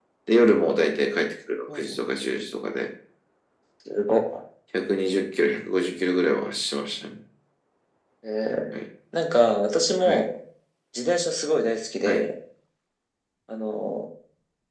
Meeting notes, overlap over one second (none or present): none